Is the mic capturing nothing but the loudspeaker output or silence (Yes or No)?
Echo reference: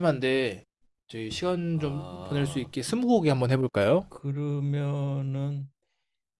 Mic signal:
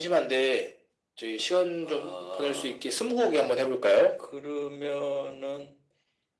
Yes